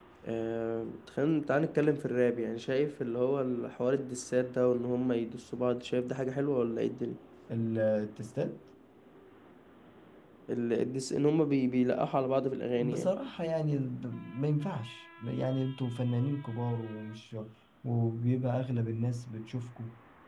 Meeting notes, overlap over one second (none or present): none